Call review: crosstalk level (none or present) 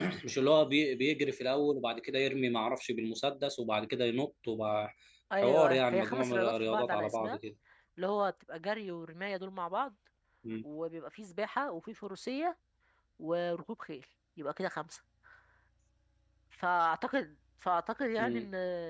present